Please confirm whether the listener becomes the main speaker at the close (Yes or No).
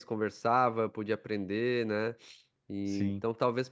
No